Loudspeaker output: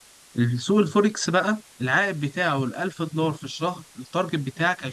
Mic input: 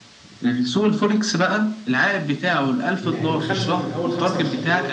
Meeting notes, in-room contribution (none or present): present